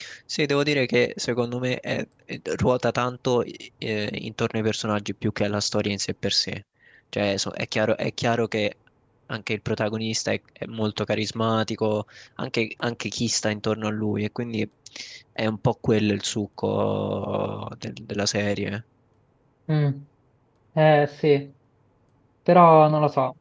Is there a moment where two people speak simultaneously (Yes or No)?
No